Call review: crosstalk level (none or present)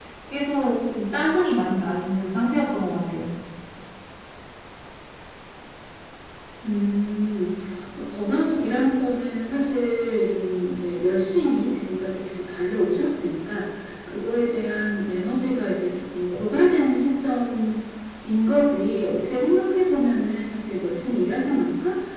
none